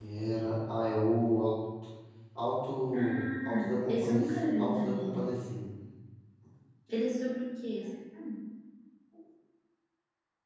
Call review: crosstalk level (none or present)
present